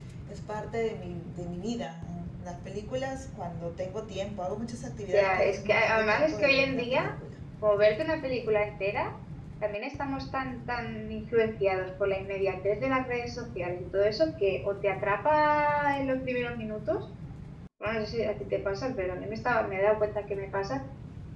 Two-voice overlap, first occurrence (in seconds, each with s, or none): 5.1 s